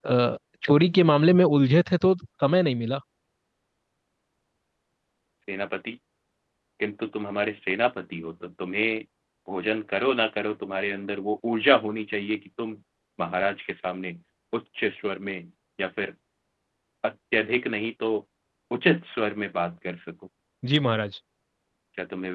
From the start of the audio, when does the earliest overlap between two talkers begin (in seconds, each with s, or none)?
none